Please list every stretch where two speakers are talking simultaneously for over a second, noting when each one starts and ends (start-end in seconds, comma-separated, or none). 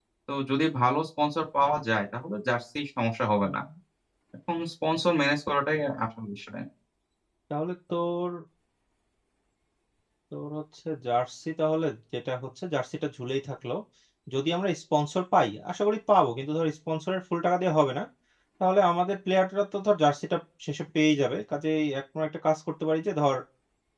none